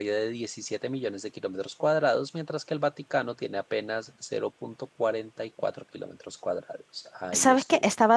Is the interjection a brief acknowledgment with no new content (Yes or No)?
No